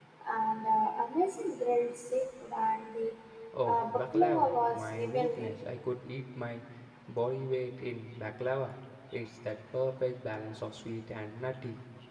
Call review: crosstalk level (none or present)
present